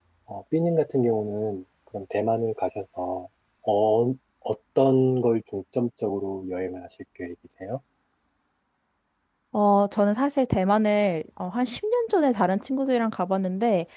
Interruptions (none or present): none